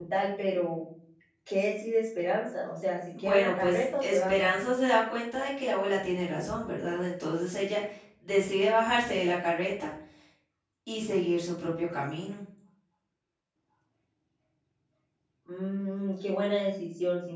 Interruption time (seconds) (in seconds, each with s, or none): 3.1 s